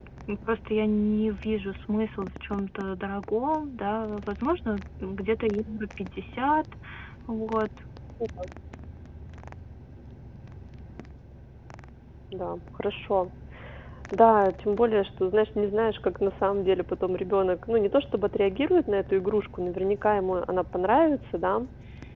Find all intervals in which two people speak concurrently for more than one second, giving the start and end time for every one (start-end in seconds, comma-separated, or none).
none